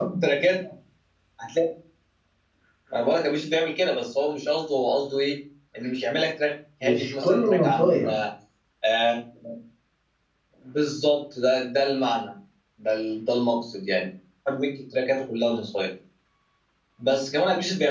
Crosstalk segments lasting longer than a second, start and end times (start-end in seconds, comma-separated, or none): 6.8-8.1